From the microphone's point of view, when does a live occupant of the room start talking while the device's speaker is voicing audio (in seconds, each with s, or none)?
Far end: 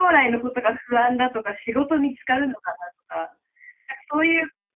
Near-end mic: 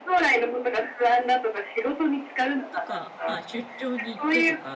2.7 s